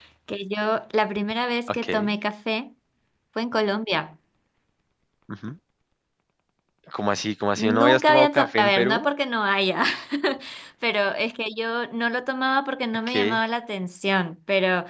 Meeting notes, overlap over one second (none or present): present